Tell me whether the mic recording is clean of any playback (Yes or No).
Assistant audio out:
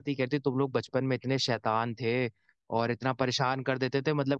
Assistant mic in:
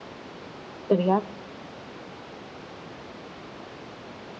Yes